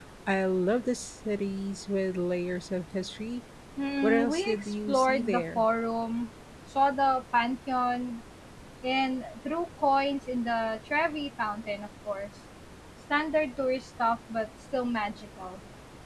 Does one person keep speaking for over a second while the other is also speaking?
Yes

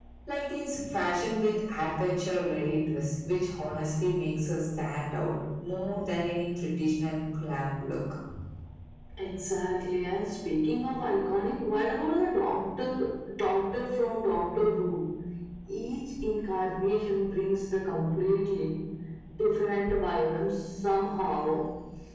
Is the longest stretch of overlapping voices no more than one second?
Yes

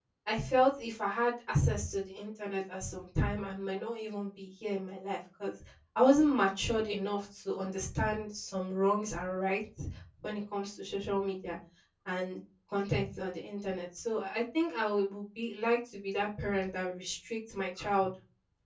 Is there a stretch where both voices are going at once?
No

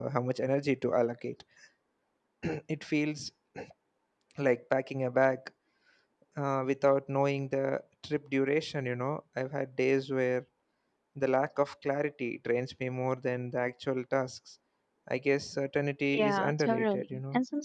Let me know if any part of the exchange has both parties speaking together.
Yes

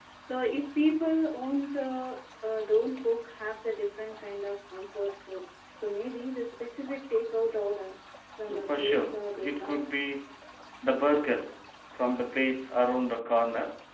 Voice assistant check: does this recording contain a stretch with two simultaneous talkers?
Yes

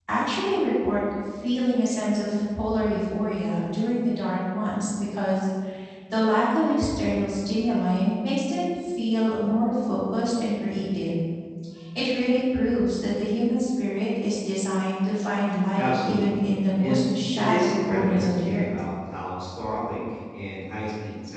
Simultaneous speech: Yes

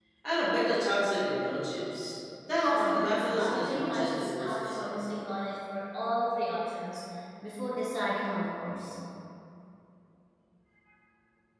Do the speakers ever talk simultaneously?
Yes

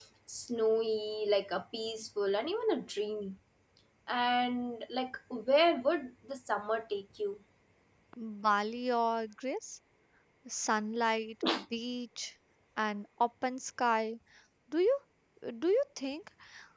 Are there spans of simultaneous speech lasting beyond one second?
No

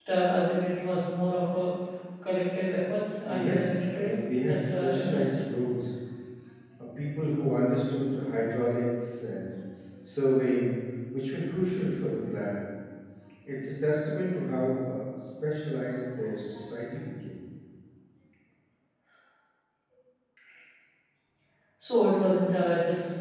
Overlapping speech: Yes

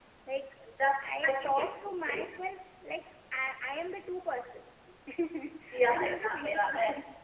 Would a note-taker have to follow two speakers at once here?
Yes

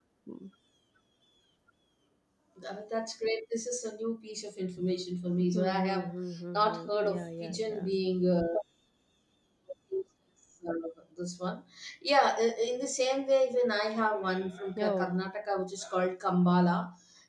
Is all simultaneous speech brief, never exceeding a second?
No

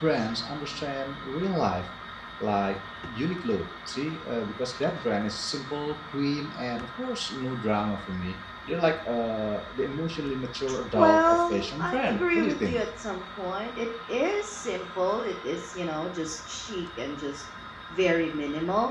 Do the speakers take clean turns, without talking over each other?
No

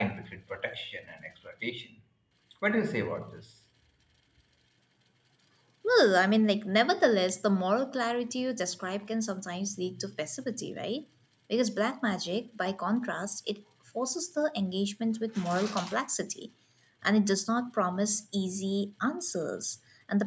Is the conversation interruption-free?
Yes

